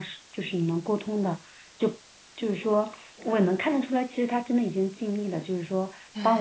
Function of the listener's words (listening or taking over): listening